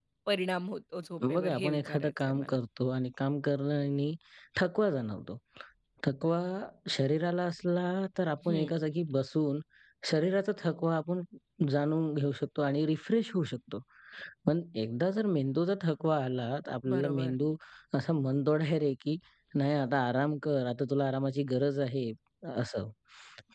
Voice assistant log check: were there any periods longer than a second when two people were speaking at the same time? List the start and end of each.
1.3-2.6

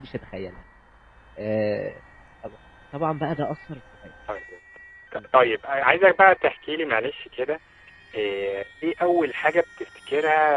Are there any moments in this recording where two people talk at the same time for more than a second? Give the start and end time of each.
none

